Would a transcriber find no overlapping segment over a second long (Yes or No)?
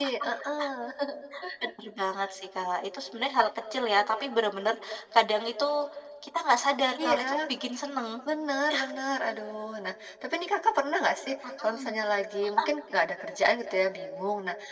Yes